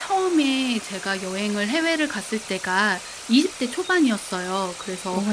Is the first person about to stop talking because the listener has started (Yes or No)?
No